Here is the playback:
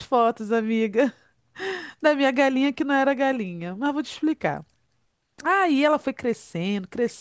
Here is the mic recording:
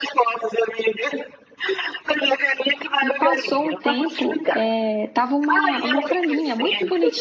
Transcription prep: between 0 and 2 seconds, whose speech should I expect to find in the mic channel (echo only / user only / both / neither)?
echo only